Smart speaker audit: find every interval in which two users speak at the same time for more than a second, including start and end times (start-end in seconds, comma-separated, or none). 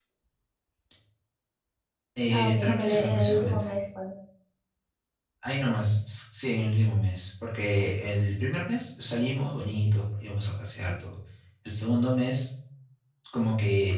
2.3-3.6